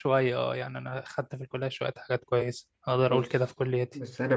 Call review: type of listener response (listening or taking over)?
taking over